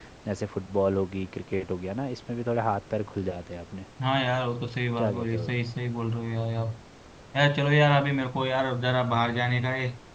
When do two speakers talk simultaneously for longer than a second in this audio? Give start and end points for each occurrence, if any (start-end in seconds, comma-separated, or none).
none